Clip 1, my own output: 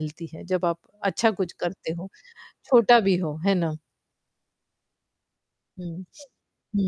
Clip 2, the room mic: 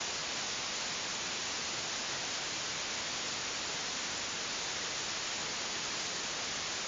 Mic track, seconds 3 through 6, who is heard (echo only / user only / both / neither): neither